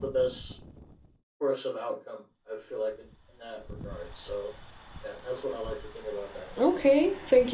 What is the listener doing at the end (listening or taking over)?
taking over